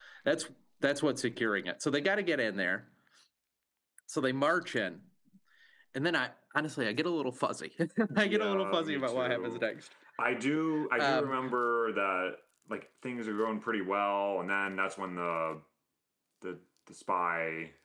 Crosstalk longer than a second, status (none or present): present